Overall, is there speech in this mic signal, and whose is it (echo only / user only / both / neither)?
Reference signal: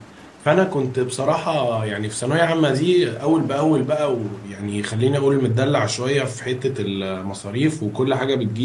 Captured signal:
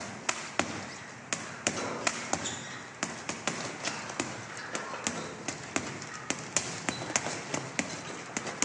neither